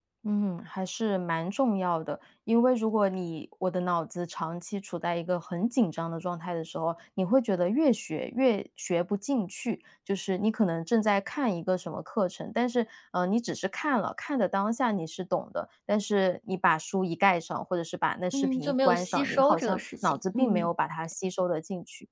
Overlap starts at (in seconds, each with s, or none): 18.3 s